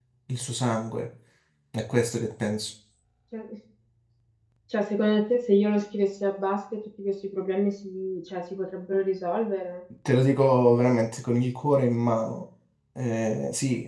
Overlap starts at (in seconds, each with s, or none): none